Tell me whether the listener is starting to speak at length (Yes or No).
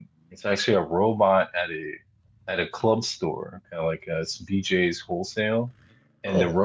No